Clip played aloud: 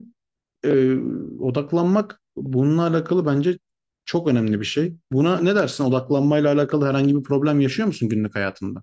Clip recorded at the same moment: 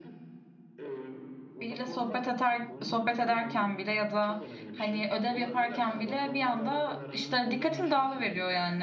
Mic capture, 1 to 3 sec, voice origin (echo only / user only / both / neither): both